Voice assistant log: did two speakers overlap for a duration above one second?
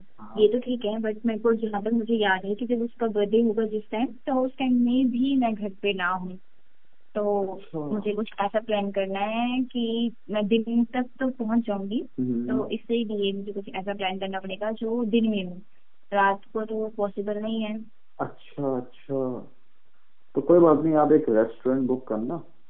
No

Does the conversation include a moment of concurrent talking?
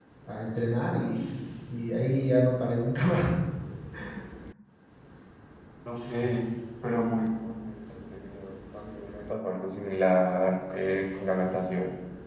No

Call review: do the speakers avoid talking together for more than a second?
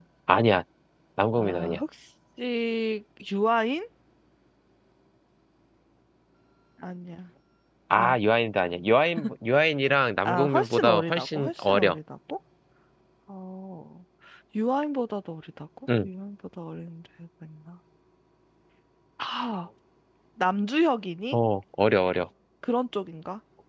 No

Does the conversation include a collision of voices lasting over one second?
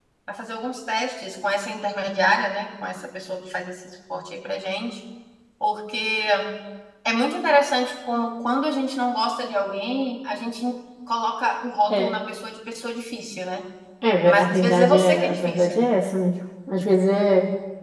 Yes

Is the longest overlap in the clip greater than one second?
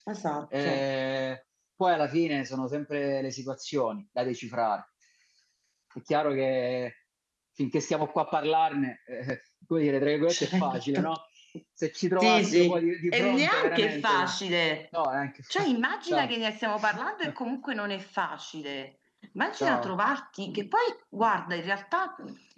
Yes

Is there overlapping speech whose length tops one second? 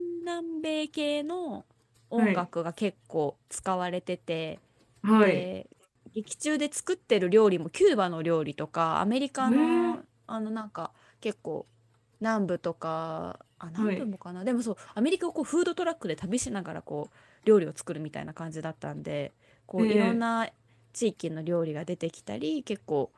No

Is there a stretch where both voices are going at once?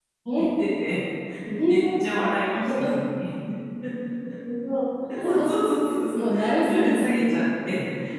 Yes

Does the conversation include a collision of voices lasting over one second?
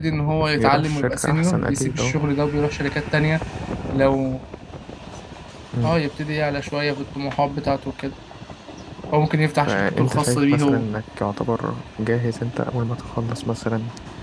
Yes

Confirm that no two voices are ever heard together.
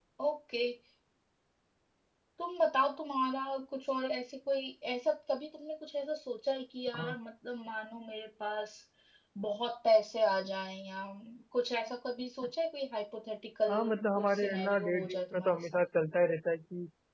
No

